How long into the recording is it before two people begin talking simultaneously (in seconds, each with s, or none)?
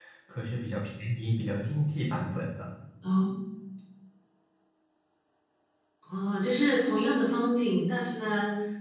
none